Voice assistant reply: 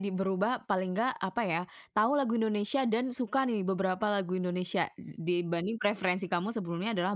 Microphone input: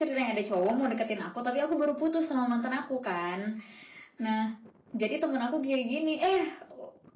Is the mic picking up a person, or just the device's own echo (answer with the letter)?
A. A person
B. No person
A